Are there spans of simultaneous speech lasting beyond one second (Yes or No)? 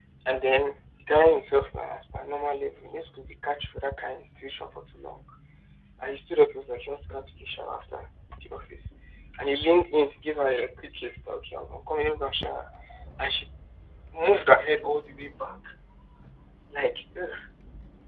No